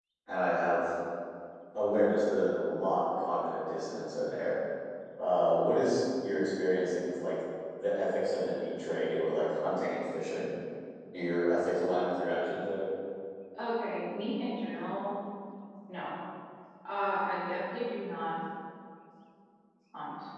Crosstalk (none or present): none